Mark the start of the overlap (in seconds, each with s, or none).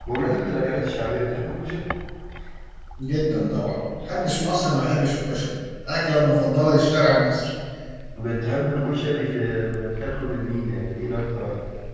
none